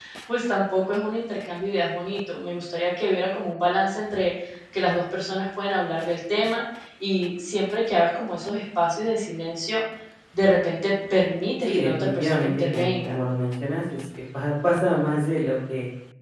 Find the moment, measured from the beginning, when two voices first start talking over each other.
11.6 s

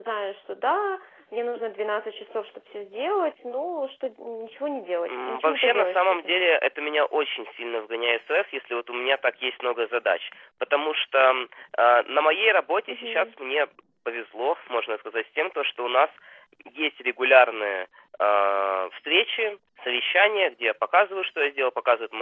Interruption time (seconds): 5.1 s

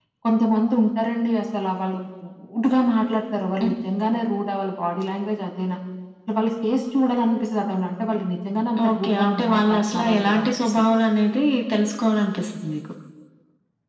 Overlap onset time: 8.8 s

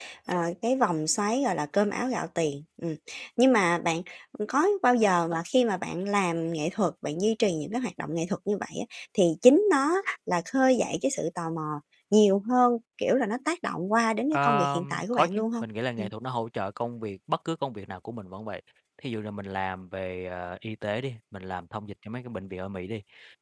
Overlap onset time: 14.3 s

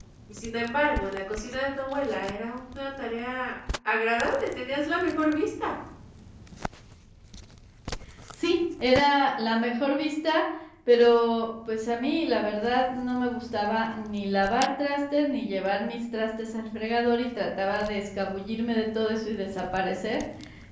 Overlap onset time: none

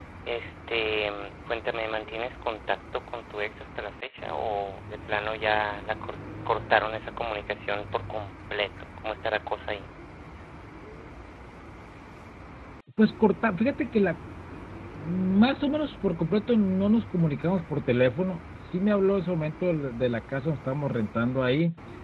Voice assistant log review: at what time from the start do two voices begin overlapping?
none

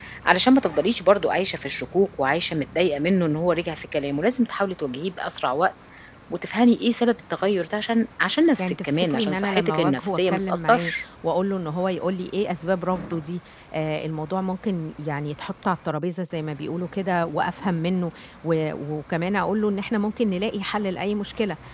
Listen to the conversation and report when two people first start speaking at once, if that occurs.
8.6 s

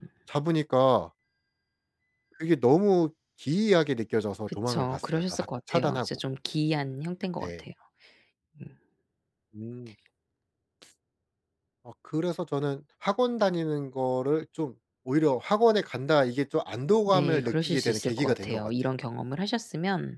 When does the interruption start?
4.5 s

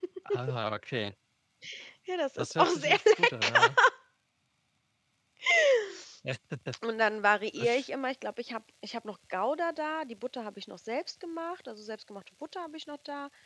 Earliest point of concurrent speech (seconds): 2.4 s

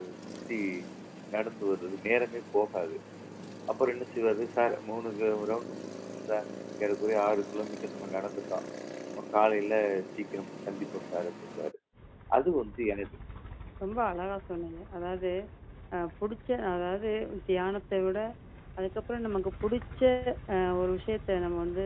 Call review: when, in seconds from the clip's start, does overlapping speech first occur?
none

